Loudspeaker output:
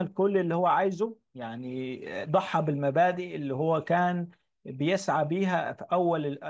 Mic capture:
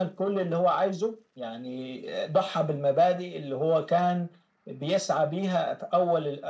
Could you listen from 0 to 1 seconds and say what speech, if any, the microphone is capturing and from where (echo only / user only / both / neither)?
echo only